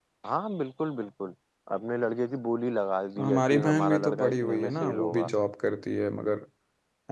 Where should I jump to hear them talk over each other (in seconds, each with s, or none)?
3.2 s